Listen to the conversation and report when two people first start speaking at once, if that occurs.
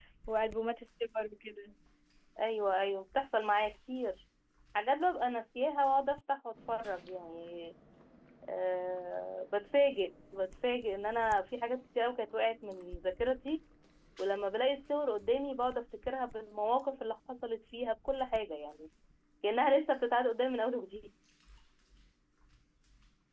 none

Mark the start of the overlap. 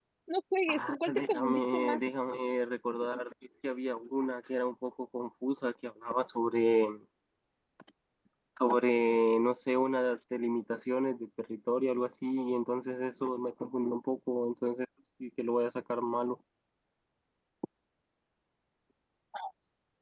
1 s

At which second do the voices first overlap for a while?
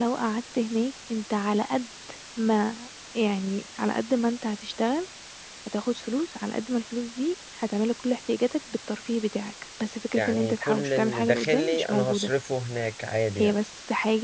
10 s

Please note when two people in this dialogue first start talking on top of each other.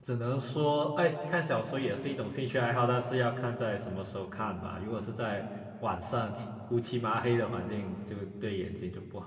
none

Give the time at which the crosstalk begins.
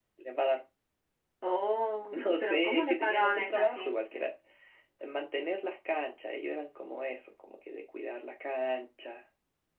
2 s

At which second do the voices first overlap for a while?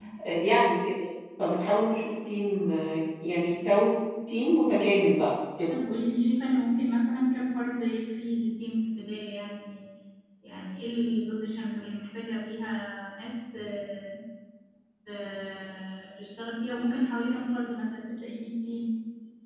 none

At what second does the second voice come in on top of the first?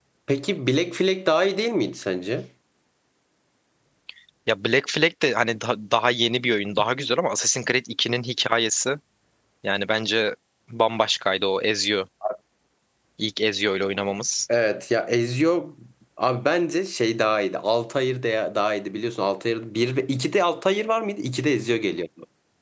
none

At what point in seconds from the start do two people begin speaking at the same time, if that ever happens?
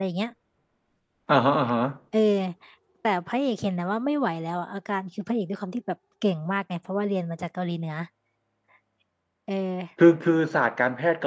none

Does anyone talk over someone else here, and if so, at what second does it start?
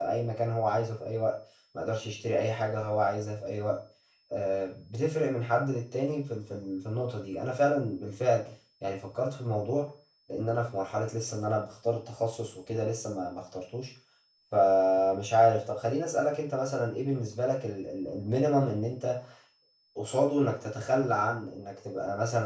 none

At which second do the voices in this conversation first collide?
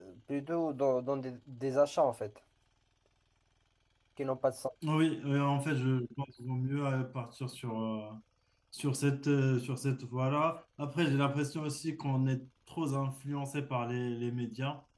none

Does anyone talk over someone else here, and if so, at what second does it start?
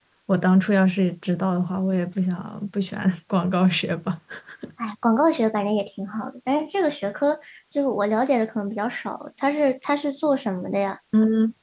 none

